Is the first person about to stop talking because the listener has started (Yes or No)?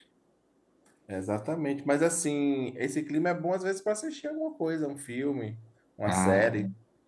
Yes